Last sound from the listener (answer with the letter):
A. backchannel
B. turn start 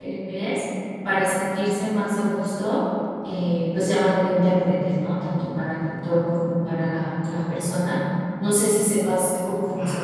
B